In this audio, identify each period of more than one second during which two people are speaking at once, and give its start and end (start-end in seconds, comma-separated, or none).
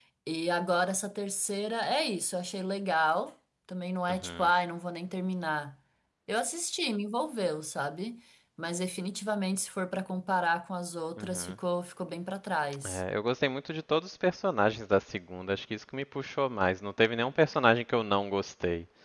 none